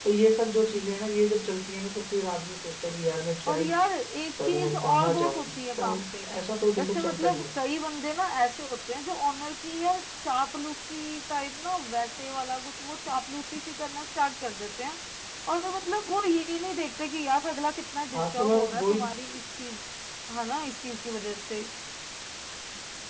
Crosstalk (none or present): present